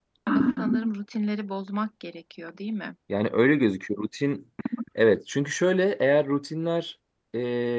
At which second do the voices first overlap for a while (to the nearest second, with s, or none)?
none